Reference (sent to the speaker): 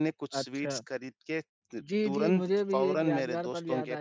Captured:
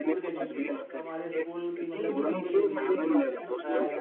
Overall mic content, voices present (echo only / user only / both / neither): both